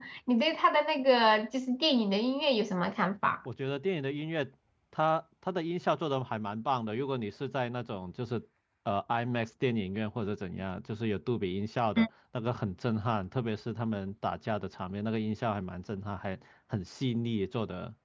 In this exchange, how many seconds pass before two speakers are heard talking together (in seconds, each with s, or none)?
none